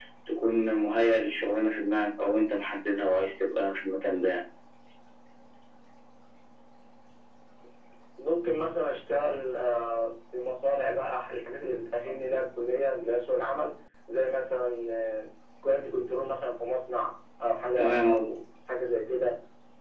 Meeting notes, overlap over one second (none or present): none